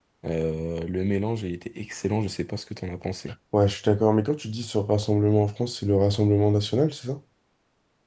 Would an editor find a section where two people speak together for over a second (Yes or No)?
No